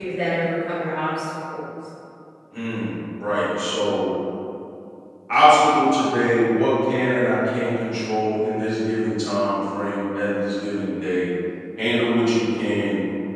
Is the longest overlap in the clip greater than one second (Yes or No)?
No